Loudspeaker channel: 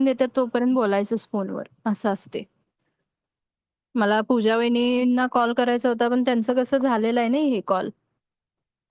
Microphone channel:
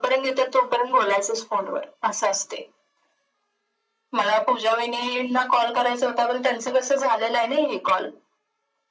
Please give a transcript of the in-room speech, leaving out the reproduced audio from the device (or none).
none